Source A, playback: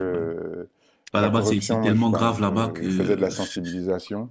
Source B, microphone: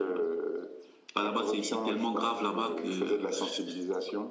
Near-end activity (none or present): none